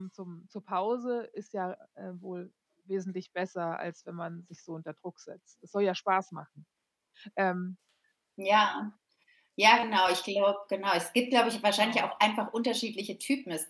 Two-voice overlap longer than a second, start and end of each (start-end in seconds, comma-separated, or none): none